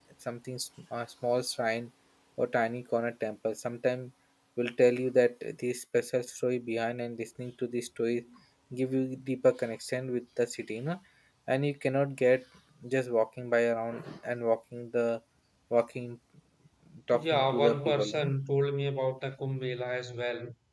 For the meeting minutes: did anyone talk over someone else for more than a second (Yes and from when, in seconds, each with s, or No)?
Yes, from 17.1 s